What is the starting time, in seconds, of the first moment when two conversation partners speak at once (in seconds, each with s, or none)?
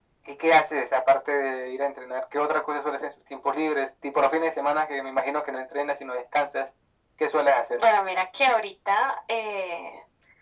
none